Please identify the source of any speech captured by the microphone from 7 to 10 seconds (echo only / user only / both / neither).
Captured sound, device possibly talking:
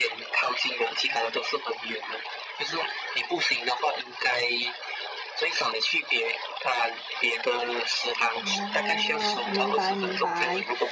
both